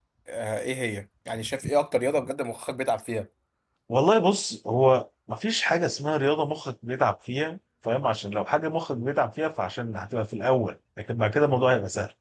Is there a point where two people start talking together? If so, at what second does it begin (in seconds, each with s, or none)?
none